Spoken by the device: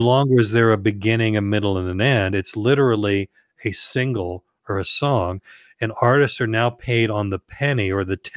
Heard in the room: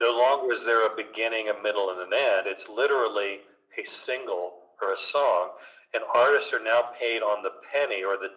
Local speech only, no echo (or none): none